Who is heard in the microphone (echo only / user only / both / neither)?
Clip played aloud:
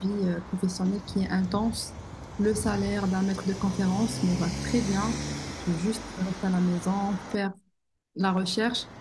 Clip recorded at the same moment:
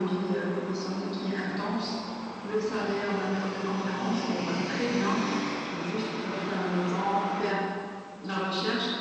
echo only